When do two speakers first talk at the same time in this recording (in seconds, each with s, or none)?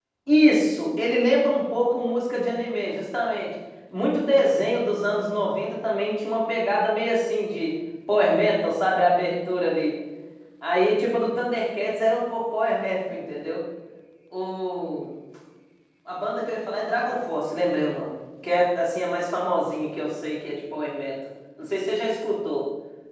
none